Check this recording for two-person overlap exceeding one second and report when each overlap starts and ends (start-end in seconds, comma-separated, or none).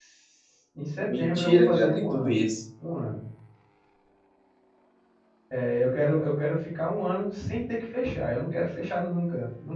1.2-2.4